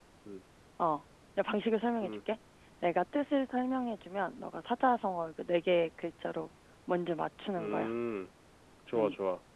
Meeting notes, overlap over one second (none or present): none